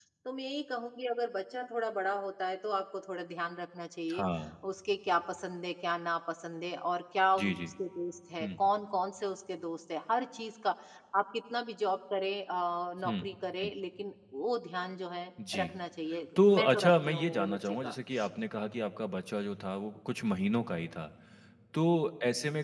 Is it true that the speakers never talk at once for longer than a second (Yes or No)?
No